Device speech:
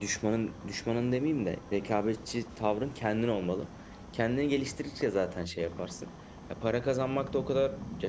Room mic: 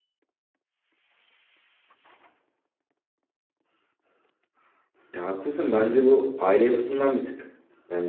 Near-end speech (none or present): present